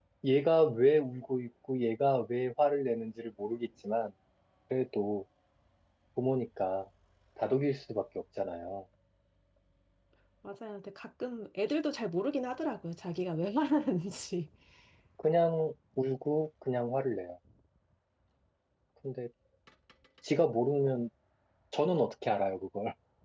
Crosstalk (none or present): none